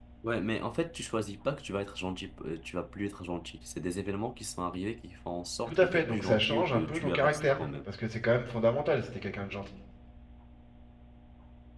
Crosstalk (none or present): present